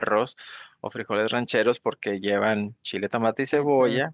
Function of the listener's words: listening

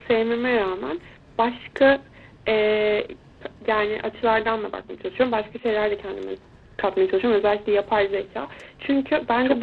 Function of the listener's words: listening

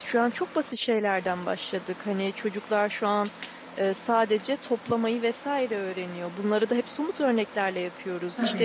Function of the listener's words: listening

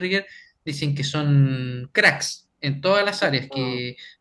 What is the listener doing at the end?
listening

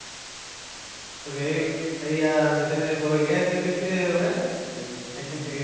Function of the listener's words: listening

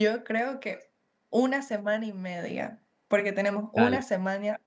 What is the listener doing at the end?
listening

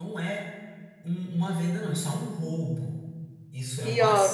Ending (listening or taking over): listening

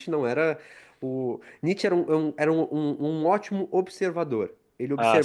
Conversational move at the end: listening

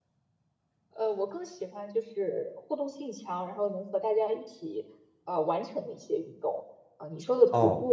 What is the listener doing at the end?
listening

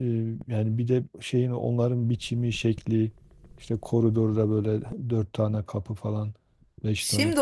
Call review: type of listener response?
taking over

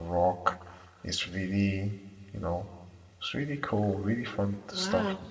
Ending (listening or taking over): taking over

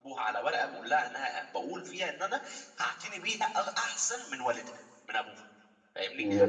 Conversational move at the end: taking over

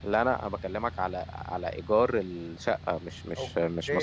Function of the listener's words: taking over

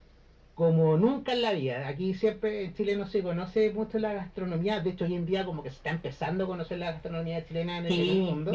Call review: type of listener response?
taking over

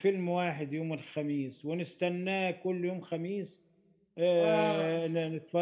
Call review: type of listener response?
listening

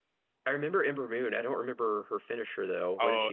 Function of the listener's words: taking over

